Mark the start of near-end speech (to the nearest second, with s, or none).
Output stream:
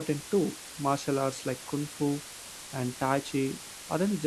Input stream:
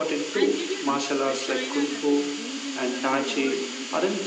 0 s